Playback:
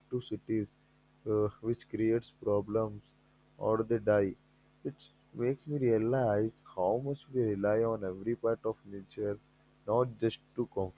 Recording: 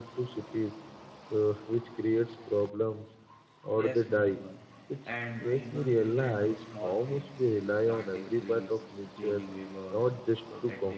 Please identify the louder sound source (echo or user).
echo